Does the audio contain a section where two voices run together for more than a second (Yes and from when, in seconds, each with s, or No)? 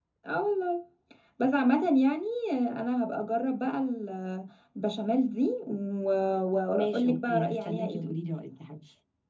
Yes, from 6.7 s